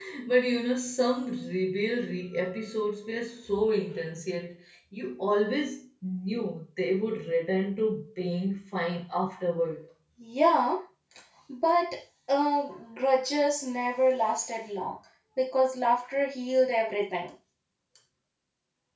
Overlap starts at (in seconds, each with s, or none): none